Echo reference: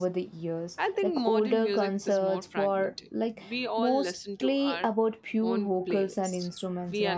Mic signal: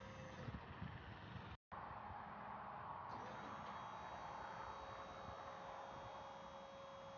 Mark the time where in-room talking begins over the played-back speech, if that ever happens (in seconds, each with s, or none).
none